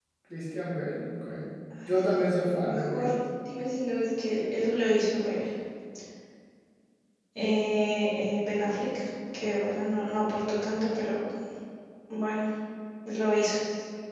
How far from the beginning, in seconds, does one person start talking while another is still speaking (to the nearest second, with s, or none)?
2 s